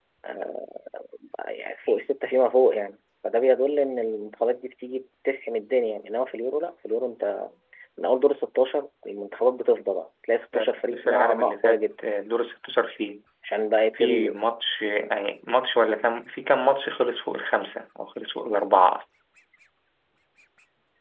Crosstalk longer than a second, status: present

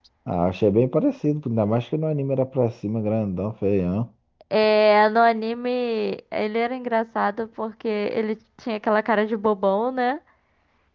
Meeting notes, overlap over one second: none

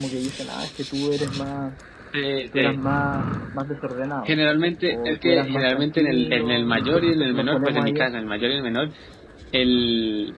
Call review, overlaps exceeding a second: present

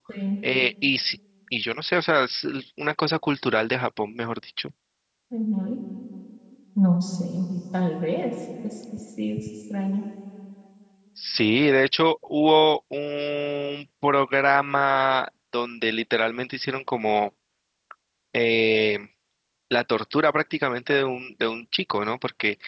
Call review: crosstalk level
none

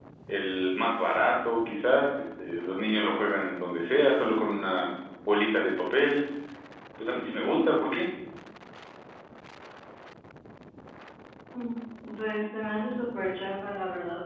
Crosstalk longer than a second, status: none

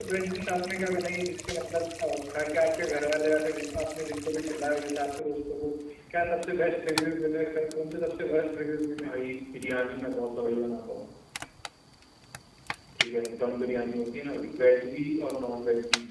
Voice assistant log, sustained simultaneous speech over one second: none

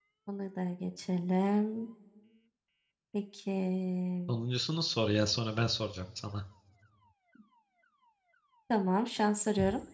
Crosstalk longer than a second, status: none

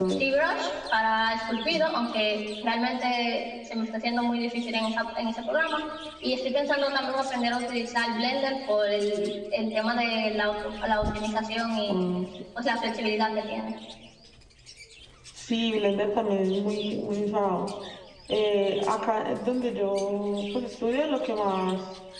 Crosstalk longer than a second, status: none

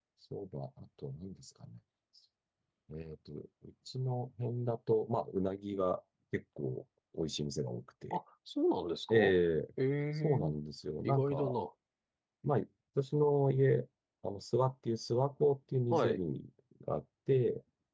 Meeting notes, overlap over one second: none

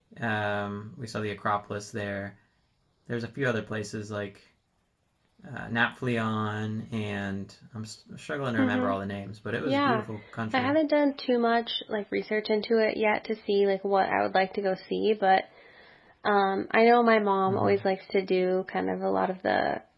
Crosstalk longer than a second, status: none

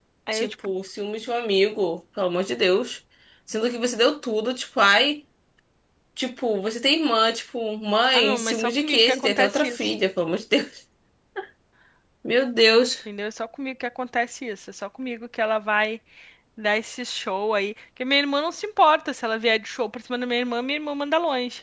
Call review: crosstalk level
present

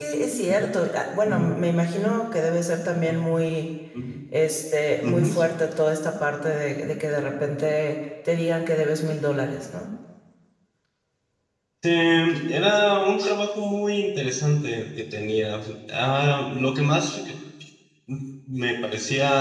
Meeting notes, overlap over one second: none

